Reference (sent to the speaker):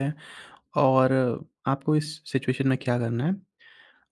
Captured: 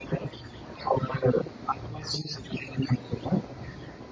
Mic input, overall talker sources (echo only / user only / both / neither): echo only